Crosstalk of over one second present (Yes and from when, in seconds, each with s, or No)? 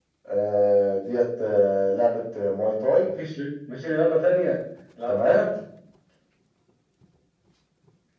No